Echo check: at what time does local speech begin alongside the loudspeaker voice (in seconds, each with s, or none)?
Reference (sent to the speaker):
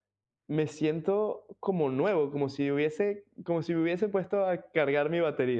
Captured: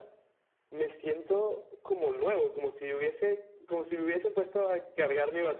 none